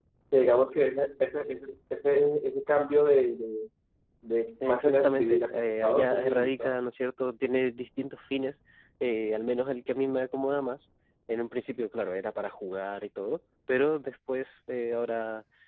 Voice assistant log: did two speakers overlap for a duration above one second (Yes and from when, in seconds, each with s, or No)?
Yes, from 4.6 s